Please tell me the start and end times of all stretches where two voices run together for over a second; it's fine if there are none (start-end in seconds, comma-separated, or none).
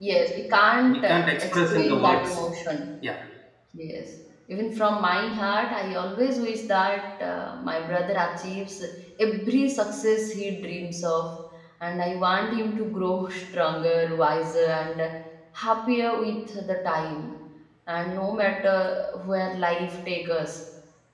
0.9-2.4